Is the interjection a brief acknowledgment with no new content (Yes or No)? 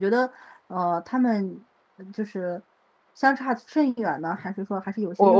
No